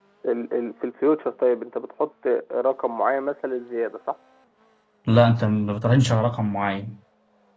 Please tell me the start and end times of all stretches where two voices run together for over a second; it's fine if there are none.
none

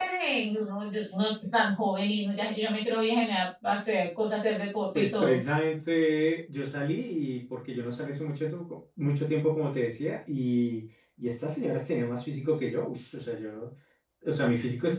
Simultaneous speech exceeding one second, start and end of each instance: none

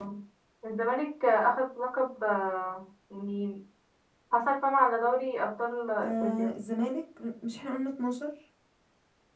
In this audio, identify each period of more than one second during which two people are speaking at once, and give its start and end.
none

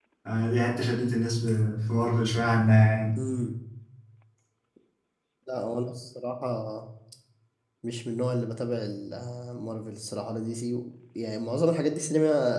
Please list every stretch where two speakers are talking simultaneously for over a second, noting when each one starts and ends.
none

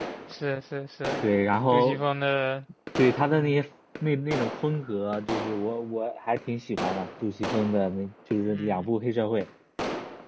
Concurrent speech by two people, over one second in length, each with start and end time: none

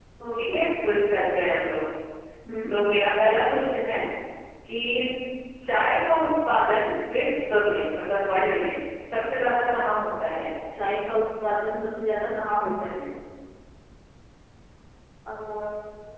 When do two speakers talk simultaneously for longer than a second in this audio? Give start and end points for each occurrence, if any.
none

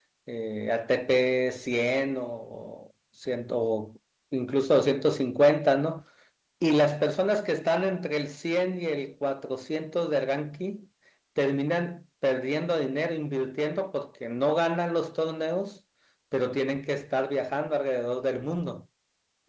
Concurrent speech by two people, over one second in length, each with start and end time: none

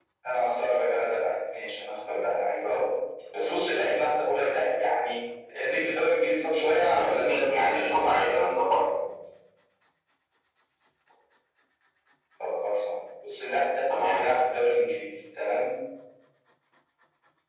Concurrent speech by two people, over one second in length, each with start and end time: 6.9-8.4

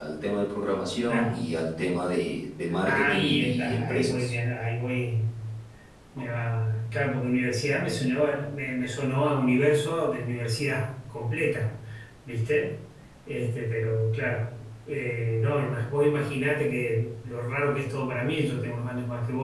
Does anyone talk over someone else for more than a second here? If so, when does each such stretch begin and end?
2.8-4.3

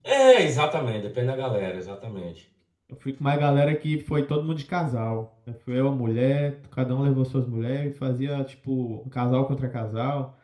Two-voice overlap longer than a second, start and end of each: none

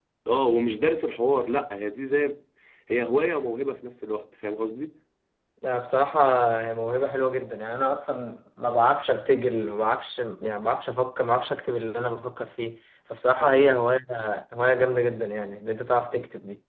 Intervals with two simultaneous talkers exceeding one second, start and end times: none

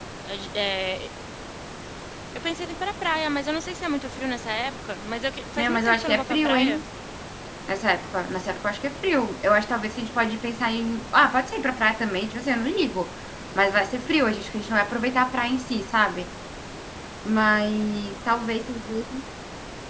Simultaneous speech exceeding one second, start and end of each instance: 5.6-6.8

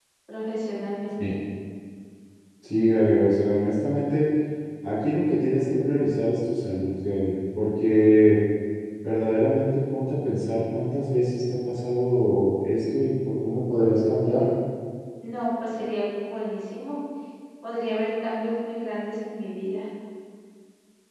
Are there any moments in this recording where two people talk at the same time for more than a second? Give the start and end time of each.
none

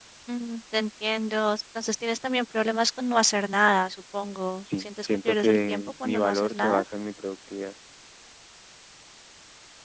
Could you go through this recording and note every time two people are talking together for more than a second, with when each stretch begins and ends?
4.6-6.8

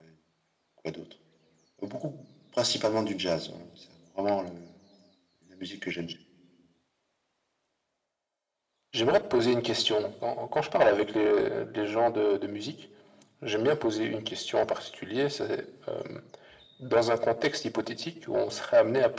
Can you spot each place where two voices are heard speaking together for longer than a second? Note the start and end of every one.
none

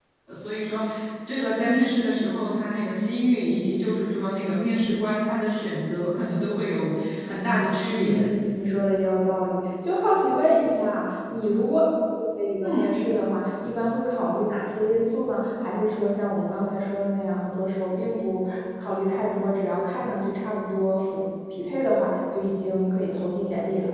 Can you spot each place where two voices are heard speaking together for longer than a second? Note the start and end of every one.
none

